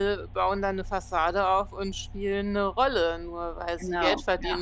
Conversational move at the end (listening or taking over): listening